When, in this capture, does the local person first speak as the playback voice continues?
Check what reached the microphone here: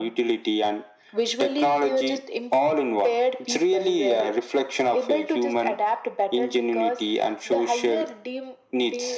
none

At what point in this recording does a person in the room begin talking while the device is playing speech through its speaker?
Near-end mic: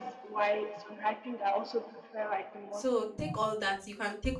2.7 s

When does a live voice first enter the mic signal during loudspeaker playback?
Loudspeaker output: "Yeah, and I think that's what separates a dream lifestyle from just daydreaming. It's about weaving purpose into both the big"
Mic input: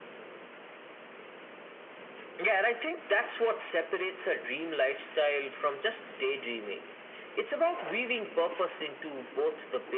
none

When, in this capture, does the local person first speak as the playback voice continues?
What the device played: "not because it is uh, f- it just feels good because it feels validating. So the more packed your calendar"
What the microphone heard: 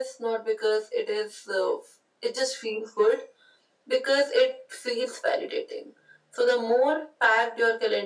none

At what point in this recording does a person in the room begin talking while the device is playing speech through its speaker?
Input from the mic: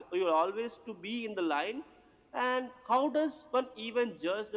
none

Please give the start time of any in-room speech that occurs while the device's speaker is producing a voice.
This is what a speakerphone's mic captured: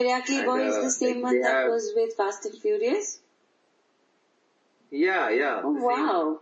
none

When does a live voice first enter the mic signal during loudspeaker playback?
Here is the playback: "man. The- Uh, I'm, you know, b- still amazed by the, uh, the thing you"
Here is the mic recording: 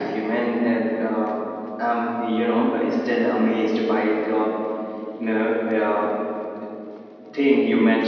none

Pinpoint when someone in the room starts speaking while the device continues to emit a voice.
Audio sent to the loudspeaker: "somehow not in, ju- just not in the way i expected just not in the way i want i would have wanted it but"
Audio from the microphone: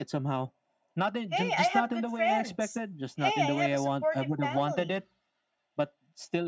1.2 s

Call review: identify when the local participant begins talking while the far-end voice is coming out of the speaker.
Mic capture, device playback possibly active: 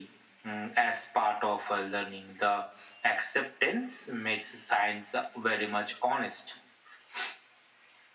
none

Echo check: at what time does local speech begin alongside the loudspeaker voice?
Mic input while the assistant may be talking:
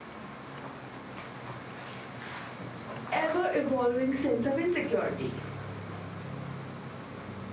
3.1 s

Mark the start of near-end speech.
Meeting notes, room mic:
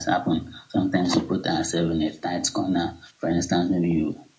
none

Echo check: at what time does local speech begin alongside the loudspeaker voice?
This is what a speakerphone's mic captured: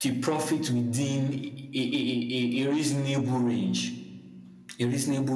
none

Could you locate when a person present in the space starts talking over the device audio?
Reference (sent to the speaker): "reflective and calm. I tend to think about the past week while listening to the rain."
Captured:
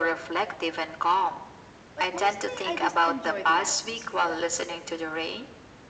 1.9 s

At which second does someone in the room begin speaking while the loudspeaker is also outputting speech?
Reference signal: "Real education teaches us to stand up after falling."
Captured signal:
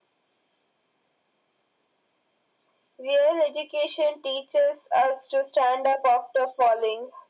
none

